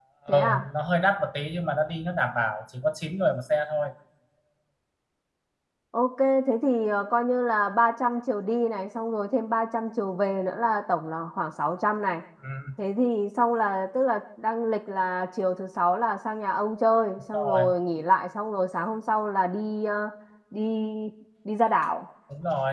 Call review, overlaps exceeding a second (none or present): none